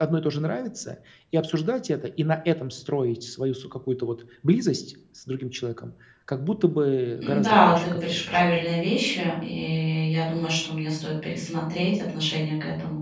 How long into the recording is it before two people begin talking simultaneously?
7.2 s

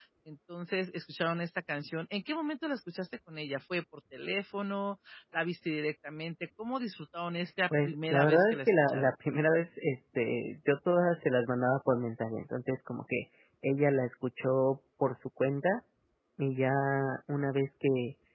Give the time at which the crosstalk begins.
7.7 s

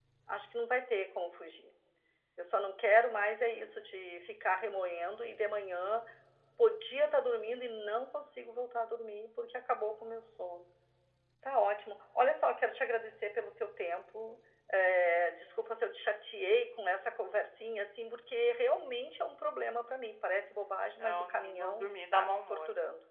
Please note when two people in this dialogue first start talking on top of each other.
21.0 s

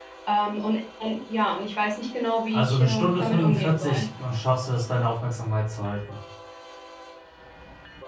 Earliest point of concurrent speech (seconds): 2.5 s

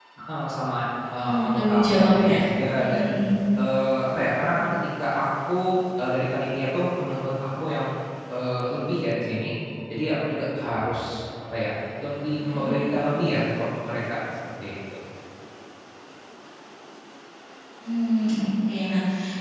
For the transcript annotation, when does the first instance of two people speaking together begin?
1.2 s

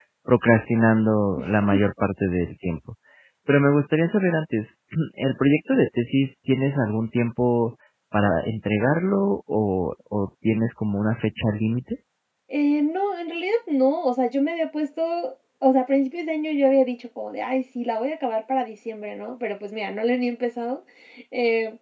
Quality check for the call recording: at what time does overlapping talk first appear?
none

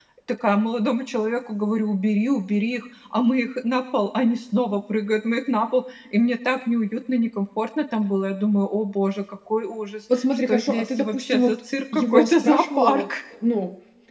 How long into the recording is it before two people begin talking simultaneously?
10.1 s

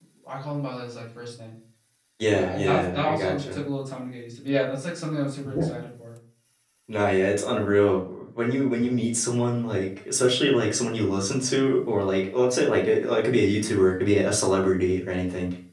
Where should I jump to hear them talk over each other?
2.3 s

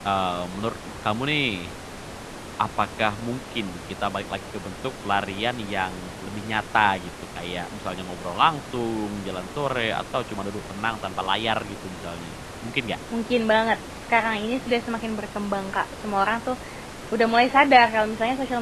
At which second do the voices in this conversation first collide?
none

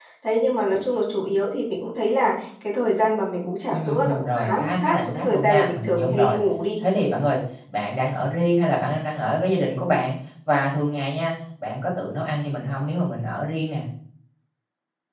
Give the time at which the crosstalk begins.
3.7 s

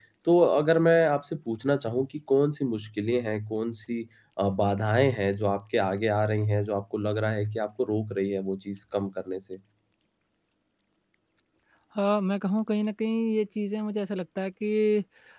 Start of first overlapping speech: none

